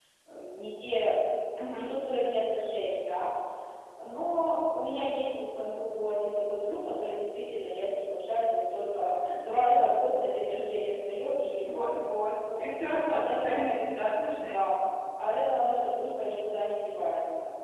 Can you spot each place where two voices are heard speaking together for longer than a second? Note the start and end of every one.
none

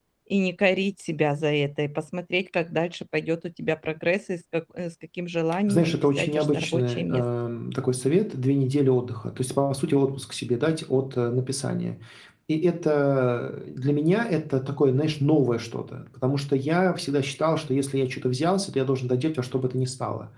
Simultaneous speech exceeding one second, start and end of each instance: 5.7-7.2

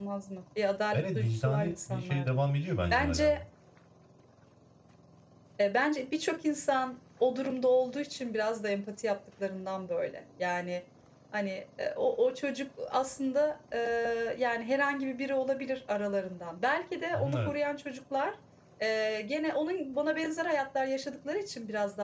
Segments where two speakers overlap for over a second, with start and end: 0.9-2.3

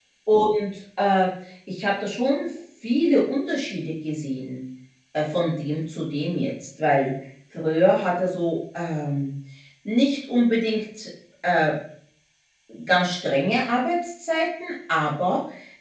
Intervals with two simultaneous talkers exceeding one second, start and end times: none

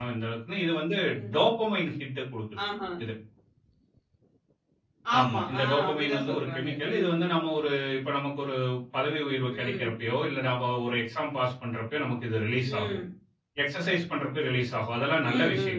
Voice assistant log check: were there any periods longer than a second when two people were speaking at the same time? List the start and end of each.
5.2-7.2

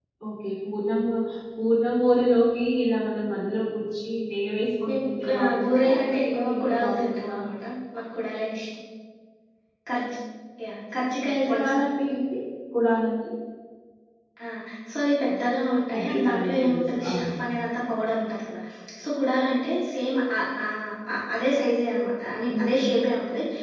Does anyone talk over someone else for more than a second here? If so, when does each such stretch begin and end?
4.9-7.4, 15.9-17.4

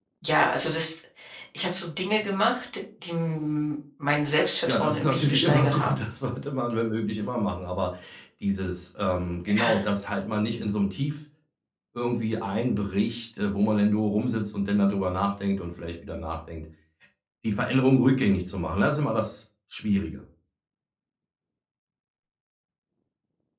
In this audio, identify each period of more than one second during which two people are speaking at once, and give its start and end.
4.7-6.0

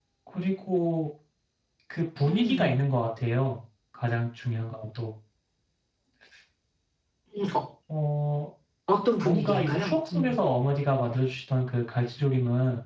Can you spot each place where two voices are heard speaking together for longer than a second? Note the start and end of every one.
9.2-10.4

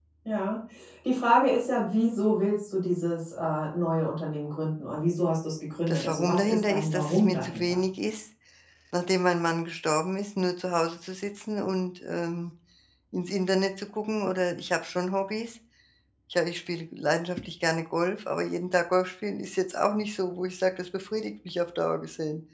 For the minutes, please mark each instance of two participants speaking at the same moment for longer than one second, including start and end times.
5.9-7.8

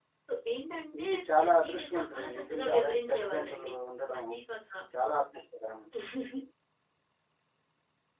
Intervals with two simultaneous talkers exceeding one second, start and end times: 1.0-3.7

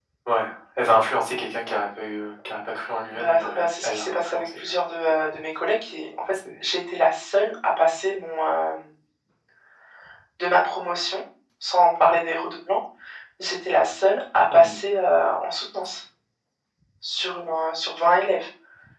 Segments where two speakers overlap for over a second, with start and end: 3.1-4.5

